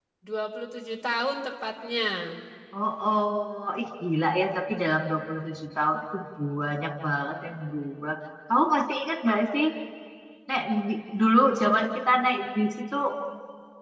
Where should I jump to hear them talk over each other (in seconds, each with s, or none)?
none